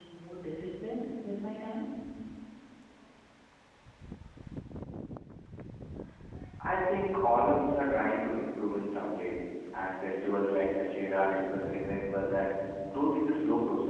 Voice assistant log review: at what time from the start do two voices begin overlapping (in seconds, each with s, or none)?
none